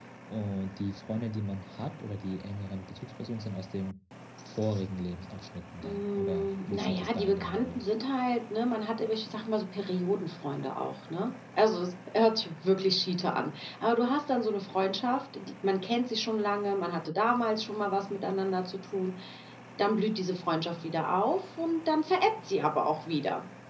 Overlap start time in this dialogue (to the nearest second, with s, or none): 6 s